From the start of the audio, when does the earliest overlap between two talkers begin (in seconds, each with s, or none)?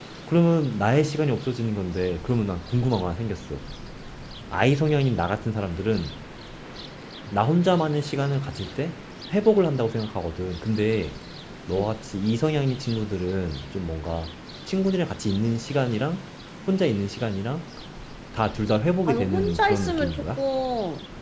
19.1 s